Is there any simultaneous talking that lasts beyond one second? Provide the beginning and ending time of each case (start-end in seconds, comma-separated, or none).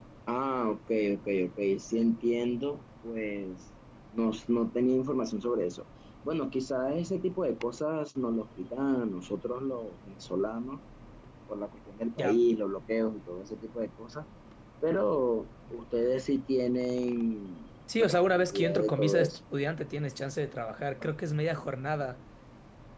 18.0-19.4